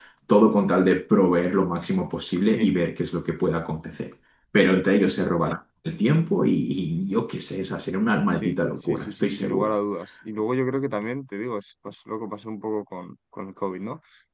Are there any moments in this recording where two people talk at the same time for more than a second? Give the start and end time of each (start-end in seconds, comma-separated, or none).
8.4-9.8